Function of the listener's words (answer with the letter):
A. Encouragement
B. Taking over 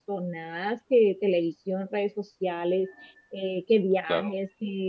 A